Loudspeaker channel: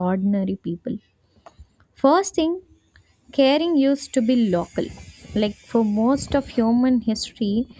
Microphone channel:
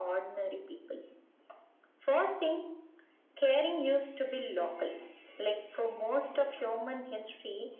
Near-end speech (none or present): none